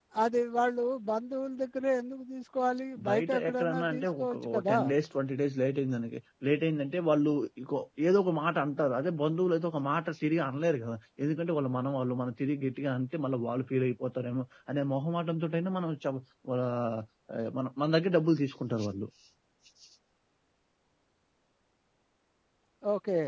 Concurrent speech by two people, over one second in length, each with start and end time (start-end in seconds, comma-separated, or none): 3.1-4.8